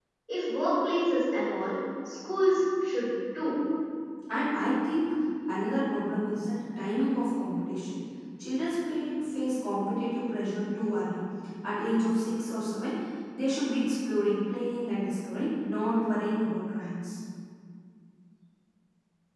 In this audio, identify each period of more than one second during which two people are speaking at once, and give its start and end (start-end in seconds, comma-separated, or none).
none